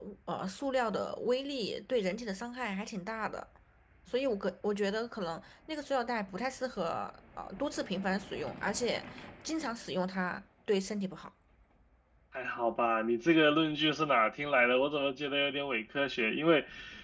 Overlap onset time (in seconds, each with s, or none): none